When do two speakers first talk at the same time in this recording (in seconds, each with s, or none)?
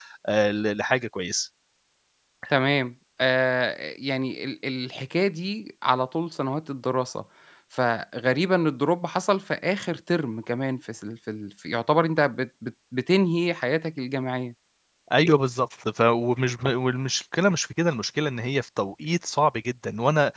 none